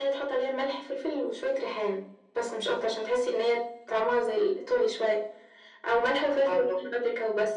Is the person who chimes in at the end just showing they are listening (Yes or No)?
Yes